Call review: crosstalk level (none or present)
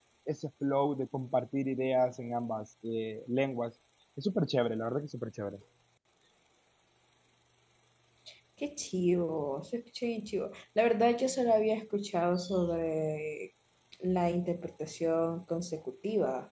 none